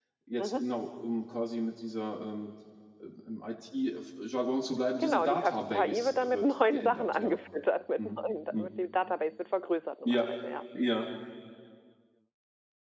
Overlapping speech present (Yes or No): Yes